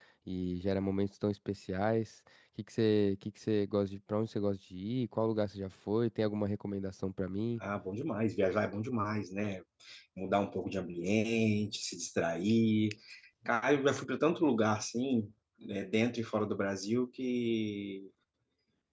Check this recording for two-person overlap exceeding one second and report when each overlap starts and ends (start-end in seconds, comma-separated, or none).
none